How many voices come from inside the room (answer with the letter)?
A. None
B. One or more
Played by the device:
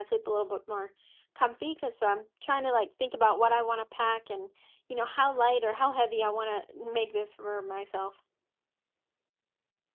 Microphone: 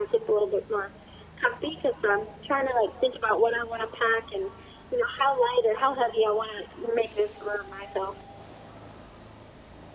A